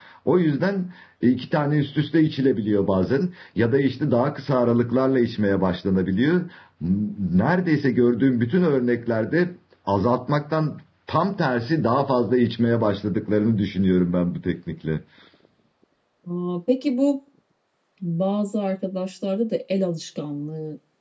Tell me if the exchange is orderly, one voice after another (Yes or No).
Yes